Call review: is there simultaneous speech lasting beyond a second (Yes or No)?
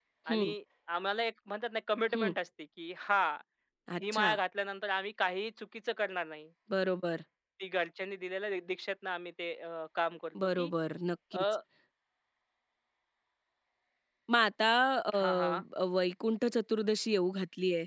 No